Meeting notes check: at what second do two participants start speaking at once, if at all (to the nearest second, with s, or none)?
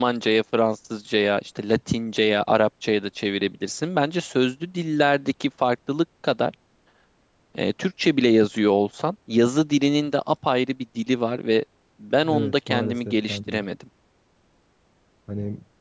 12 s